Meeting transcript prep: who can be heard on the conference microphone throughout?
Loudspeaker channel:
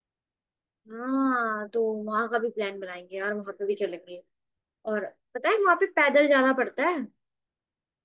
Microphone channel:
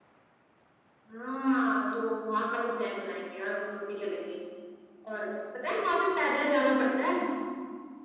echo only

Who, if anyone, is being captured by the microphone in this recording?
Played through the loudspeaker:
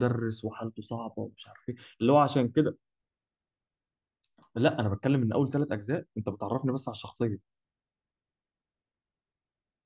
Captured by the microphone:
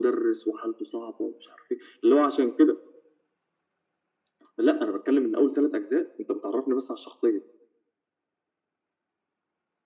echo only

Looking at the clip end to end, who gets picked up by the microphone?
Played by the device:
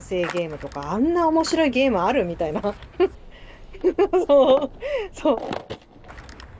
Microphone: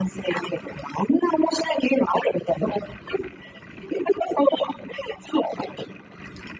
echo only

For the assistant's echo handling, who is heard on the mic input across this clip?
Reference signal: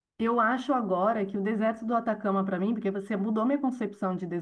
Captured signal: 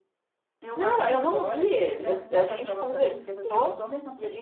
both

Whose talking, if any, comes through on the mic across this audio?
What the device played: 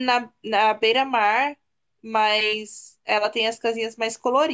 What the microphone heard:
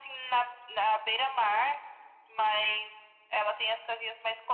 echo only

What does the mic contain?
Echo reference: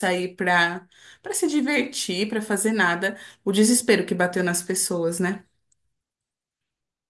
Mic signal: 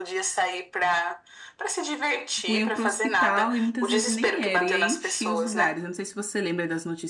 both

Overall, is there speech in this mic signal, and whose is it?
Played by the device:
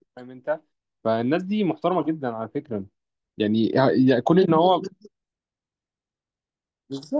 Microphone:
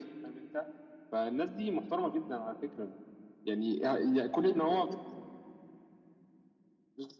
echo only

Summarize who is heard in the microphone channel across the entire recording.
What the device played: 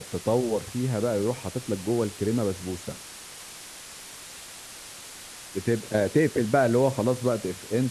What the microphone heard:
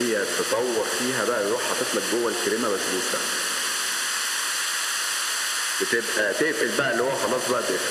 echo only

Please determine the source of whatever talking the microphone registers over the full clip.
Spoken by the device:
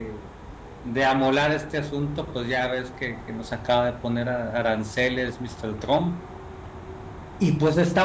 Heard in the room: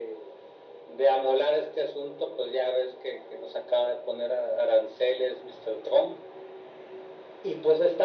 echo only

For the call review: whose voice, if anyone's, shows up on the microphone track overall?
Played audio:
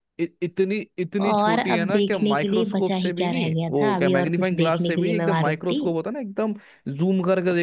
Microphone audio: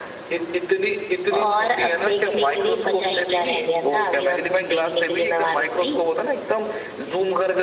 echo only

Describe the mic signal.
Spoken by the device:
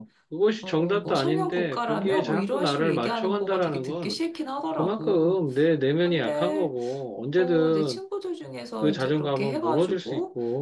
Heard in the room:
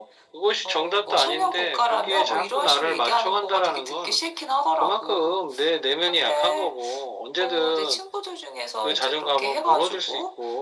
echo only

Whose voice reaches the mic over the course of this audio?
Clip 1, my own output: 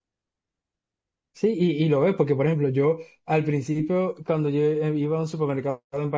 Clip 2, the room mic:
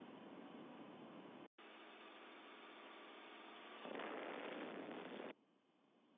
neither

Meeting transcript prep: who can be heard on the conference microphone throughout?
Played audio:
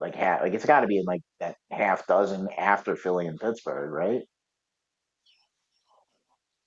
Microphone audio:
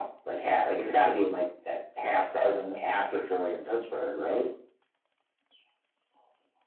echo only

